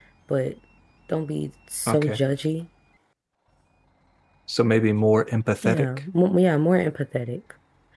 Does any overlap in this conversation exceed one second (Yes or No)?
No